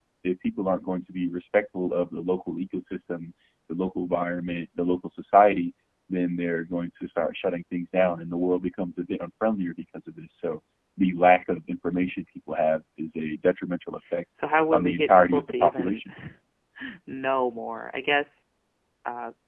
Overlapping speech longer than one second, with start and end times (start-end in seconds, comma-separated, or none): 14.7-16.0